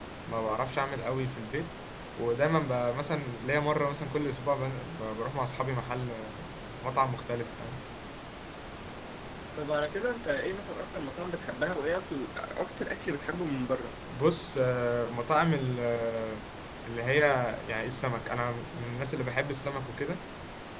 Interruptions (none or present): none